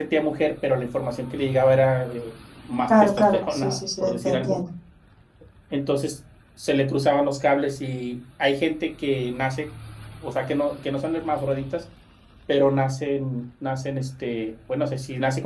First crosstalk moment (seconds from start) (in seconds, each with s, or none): 2.9 s